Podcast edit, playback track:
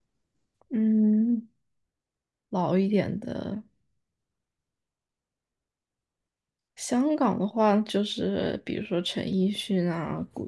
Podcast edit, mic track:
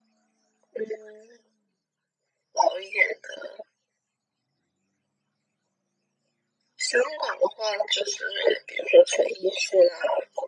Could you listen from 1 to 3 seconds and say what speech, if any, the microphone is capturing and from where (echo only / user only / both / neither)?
echo only